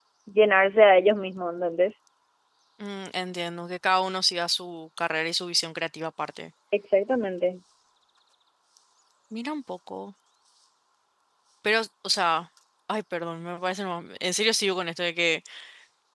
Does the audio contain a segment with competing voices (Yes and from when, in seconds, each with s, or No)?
No